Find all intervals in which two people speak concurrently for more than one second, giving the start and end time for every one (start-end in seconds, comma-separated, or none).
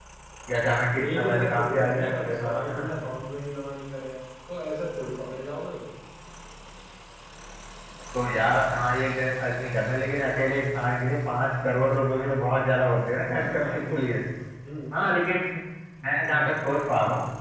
1.1-2.9